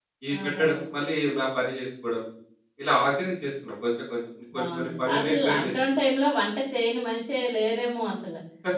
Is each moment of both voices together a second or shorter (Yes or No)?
No